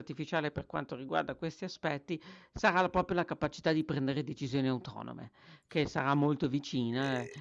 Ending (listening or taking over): listening